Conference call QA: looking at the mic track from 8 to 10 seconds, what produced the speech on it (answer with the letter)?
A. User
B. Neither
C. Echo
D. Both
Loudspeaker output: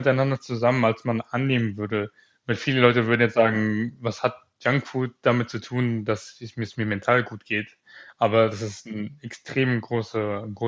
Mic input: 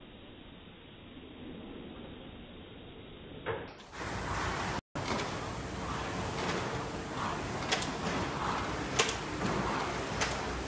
B